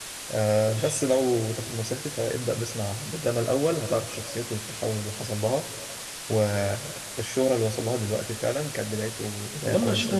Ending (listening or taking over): taking over